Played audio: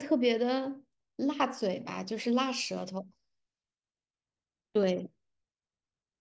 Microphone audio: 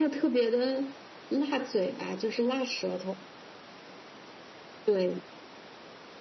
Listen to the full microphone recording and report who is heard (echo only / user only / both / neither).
echo only